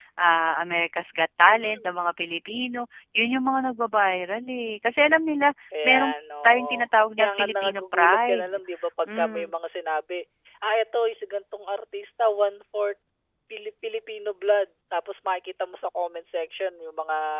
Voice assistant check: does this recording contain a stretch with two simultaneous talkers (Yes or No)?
Yes